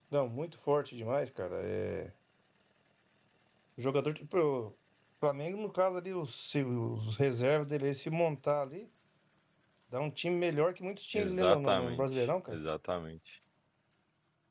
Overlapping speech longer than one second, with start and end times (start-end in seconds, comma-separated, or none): 11.1-12.6